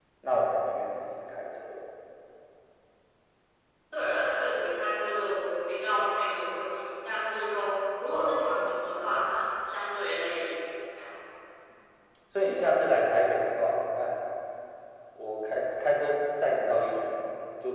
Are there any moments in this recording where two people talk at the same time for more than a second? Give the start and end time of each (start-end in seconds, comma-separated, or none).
none